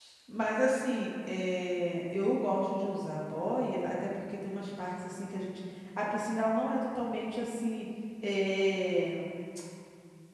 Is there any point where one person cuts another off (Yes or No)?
No